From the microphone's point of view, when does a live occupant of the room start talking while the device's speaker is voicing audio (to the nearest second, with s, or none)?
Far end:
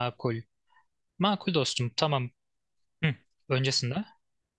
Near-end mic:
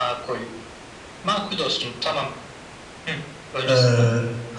4 s